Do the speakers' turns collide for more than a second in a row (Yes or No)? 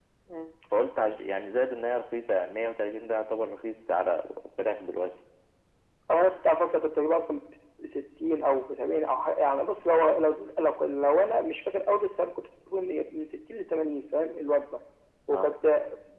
No